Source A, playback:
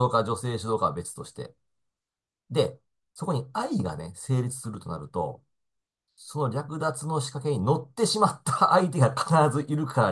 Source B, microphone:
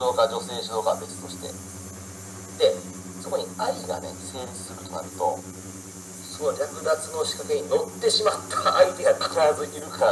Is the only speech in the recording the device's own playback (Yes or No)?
Yes